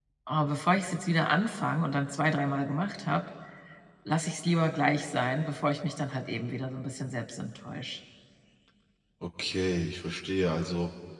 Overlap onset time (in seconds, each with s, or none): none